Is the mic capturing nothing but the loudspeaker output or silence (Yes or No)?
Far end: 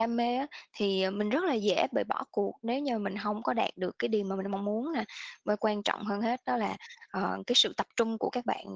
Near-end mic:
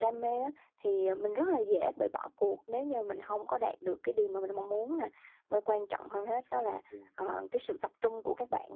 No